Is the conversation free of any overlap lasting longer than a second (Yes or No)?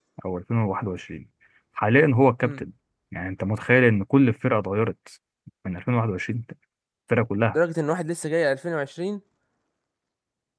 Yes